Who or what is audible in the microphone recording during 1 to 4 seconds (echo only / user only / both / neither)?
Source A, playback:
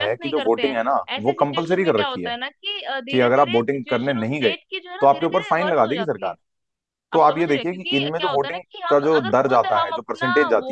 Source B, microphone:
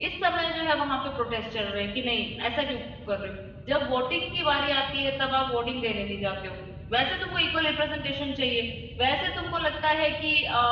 user only